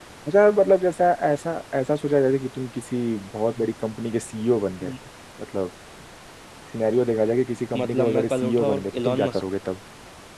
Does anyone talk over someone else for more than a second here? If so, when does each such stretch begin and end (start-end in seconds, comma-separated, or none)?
7.8-9.4